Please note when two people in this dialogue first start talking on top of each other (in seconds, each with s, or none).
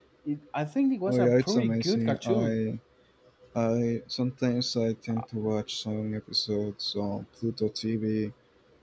1.1 s